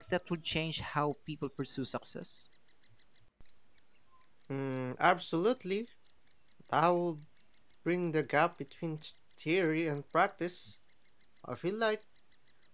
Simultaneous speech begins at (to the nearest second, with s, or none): none